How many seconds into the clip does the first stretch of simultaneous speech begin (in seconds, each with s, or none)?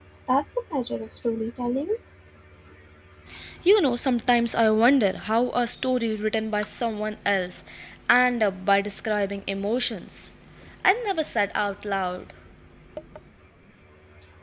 none